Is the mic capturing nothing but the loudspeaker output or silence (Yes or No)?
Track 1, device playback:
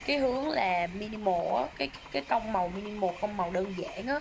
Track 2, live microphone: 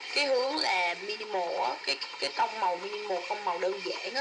Yes